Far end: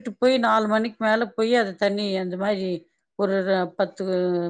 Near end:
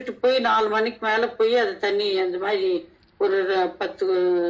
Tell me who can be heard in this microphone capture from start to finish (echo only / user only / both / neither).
echo only